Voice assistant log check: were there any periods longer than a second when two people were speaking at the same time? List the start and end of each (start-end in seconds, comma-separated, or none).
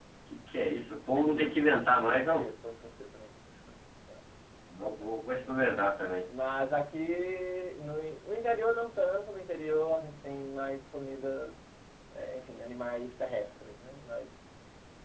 1.1-2.5